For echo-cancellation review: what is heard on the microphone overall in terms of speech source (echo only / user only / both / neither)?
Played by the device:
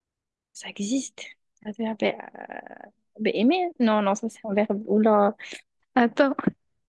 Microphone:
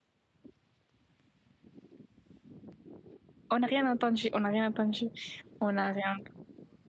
user only